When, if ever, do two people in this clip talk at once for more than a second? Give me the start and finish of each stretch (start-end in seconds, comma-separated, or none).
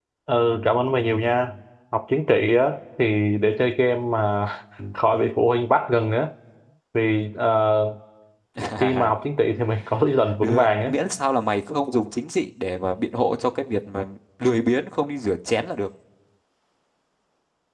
none